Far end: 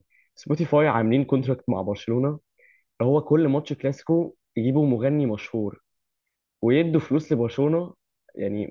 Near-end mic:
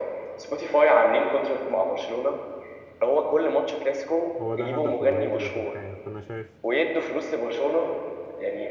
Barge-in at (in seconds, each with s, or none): 4.4 s